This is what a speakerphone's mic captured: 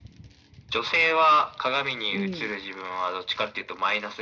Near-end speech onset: 2.1 s

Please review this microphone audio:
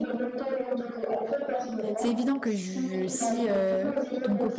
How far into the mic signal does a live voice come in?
2.0 s

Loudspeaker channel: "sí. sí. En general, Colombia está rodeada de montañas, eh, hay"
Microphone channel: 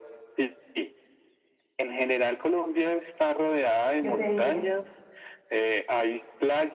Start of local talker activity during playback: 4.0 s

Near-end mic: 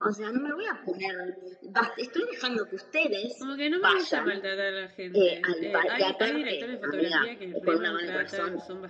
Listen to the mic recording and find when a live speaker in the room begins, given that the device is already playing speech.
3.4 s

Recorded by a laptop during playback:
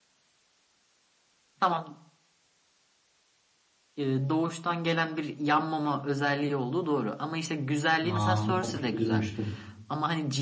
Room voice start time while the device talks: 8.1 s

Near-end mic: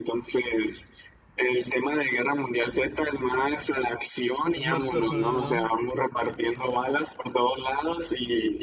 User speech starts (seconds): 4.5 s

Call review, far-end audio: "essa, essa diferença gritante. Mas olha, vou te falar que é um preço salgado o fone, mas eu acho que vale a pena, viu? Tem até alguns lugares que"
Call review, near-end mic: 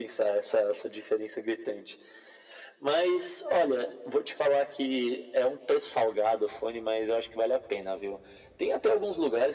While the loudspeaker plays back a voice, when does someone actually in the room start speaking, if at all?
none

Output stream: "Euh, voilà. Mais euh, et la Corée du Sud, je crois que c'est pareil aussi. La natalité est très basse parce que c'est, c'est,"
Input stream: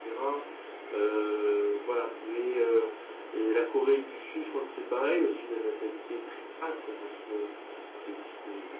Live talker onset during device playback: none

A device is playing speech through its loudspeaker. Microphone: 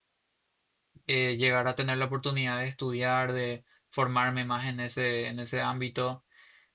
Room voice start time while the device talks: 1.1 s

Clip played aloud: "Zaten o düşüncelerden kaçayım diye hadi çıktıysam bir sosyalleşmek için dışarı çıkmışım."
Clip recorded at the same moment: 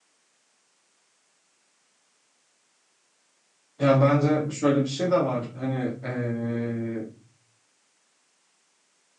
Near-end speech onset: 3.8 s

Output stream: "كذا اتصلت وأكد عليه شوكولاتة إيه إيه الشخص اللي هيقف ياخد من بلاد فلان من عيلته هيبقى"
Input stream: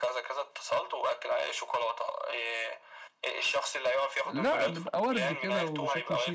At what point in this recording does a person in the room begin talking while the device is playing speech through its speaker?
4.2 s

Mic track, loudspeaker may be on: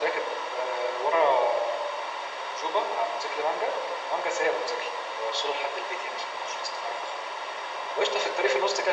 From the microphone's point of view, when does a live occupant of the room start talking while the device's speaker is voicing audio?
none

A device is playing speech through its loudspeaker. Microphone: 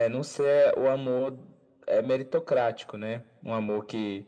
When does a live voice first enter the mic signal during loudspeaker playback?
none

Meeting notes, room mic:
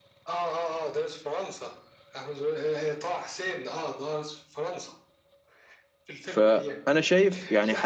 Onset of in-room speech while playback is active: 6.2 s

